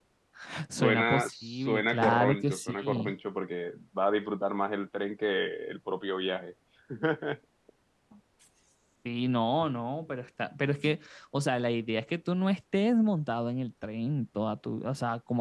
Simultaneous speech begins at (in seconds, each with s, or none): 0.7 s